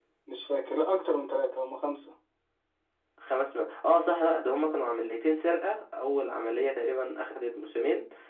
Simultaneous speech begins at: none

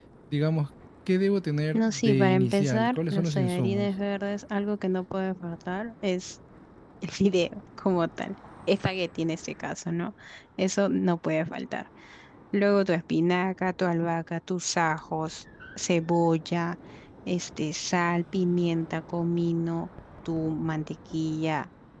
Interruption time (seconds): 1.7 s

